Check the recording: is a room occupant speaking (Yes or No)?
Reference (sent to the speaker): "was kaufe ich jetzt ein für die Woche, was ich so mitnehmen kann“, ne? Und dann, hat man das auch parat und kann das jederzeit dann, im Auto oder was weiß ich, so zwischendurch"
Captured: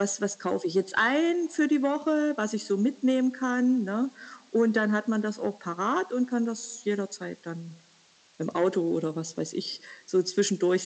No